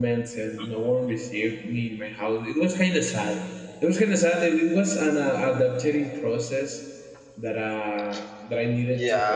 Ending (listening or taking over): taking over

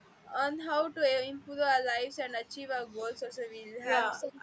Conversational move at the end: taking over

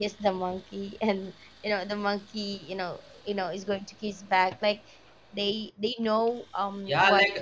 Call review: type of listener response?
taking over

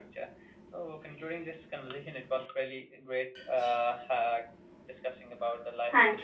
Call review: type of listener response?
taking over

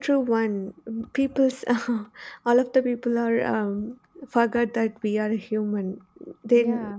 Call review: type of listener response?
listening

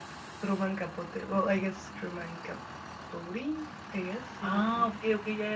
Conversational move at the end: taking over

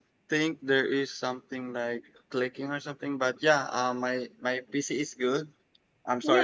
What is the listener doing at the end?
taking over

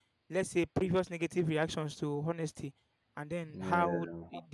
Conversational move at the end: listening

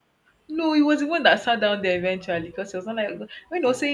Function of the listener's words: listening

